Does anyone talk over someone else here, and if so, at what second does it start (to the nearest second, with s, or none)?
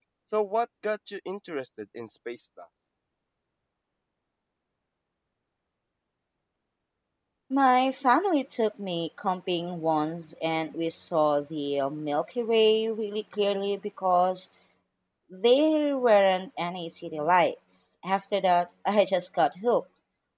none